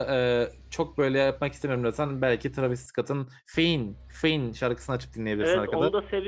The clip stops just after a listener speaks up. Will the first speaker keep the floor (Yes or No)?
No